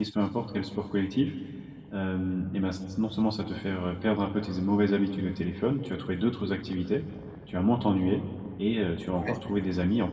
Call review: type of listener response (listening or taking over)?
listening